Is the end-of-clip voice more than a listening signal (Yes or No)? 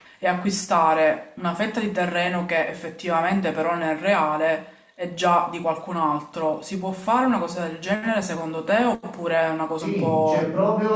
Yes